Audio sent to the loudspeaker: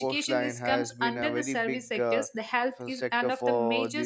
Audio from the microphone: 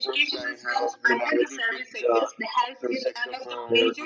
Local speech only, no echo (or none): none